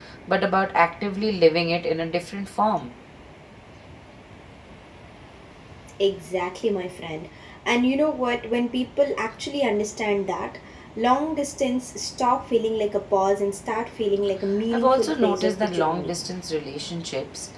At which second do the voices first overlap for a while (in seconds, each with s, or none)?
14.7 s